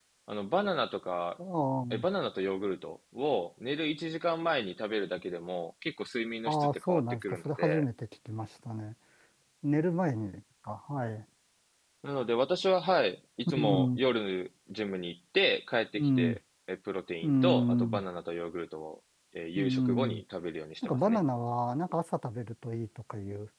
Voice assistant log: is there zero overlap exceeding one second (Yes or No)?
No